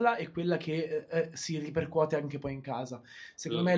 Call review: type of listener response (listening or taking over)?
listening